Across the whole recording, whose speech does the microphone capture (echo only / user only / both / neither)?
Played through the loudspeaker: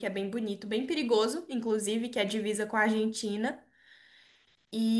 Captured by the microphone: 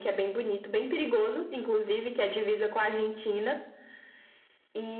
echo only